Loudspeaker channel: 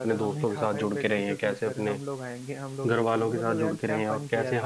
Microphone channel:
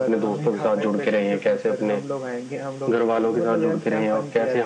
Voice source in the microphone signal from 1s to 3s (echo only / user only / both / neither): echo only